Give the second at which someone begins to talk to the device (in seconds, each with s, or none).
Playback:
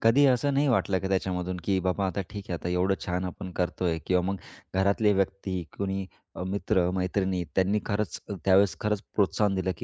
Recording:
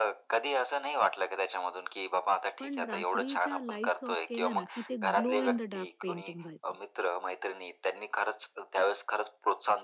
2.6 s